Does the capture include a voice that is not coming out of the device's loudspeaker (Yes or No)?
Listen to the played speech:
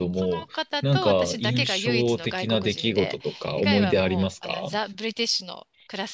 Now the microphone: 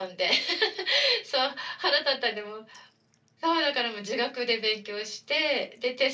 Yes